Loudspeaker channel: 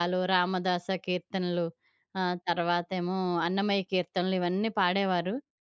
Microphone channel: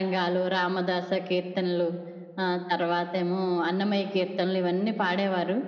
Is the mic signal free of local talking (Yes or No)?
Yes